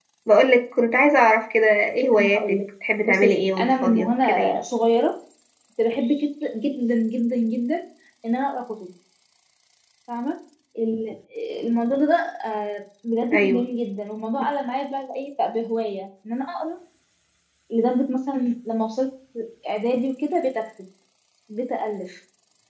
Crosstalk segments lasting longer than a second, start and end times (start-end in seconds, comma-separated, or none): 3.0-4.6